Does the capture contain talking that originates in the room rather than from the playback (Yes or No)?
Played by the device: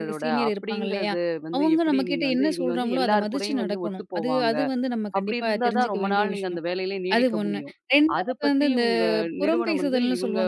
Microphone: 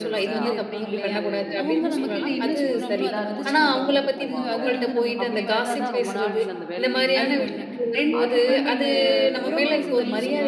Yes